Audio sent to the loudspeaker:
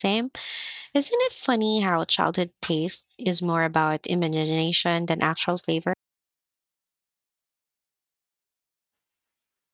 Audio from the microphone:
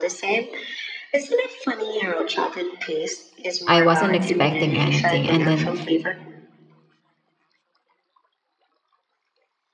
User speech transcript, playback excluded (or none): I wasn't expecting anything, and then